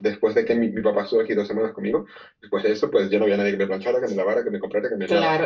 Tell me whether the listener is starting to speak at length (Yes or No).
Yes